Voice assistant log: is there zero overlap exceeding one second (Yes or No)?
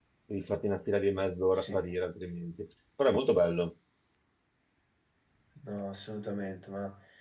Yes